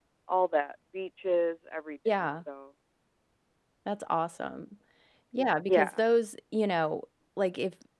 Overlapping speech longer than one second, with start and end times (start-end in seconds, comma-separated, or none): none